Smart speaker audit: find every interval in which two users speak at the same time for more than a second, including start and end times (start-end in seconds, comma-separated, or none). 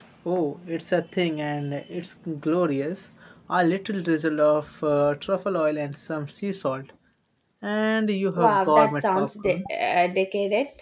8.4-9.6